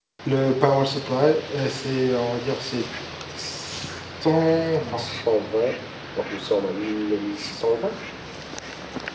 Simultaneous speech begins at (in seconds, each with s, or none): none